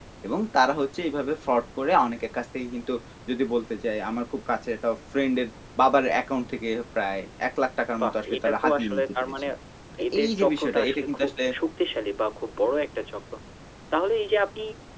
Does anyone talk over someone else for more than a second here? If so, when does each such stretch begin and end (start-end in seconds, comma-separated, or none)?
8.0-9.4, 10.1-11.4